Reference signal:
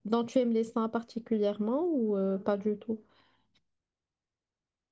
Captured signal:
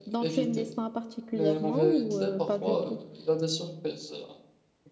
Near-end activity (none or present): present